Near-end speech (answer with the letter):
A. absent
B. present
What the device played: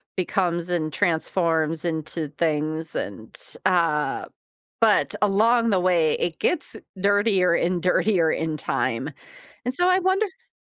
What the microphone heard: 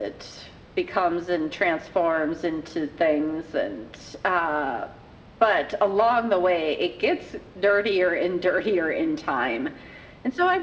A